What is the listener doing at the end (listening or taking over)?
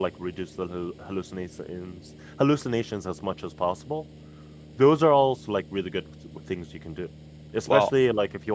listening